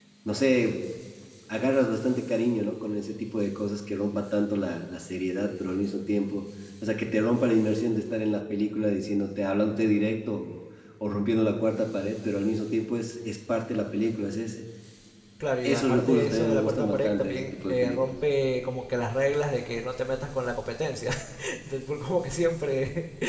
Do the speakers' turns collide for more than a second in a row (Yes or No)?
Yes